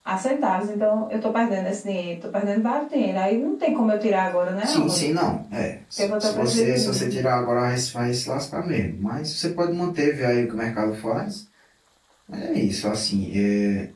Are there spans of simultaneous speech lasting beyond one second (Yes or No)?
Yes